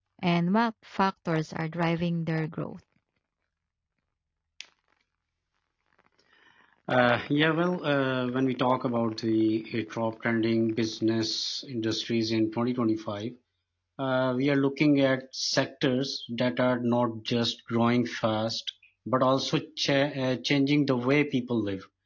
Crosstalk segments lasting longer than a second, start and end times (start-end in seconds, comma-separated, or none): none